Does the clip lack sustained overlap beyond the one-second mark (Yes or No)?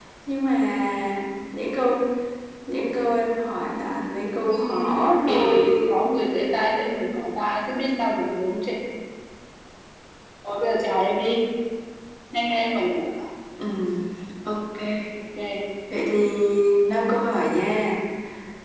No